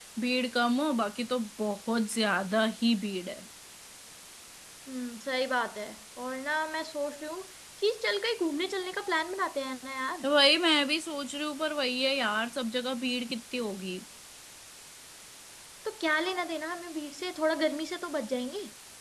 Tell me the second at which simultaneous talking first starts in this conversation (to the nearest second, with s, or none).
none